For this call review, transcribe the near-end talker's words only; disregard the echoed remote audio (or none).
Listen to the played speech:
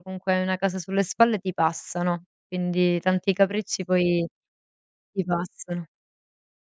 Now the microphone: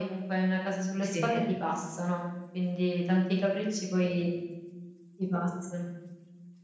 Sì.